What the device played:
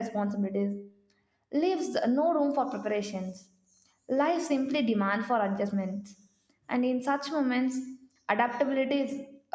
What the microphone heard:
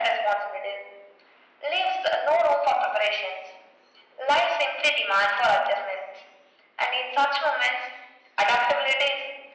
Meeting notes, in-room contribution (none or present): none